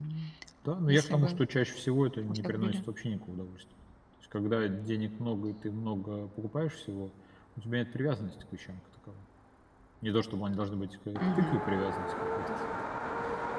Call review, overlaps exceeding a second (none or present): none